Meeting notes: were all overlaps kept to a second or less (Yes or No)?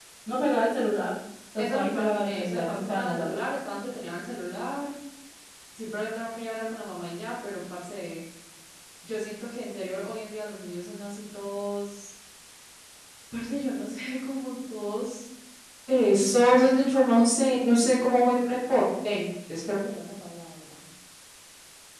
No